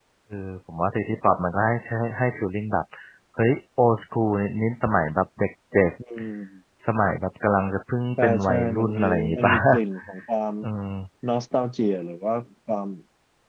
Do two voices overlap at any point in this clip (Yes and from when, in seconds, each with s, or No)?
Yes, from 8.2 s